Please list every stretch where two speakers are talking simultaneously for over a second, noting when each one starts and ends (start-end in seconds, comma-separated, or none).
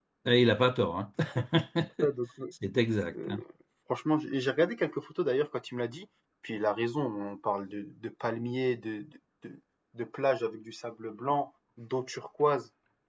none